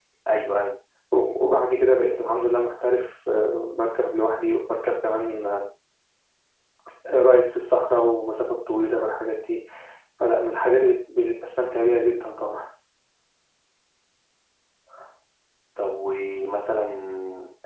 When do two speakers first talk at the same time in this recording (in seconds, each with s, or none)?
none